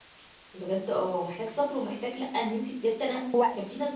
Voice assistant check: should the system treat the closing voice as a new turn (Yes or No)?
No